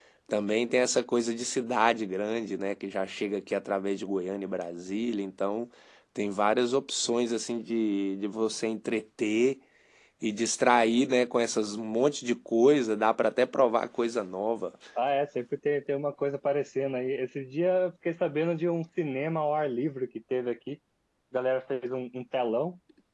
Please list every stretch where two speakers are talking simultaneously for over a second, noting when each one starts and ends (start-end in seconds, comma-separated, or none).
none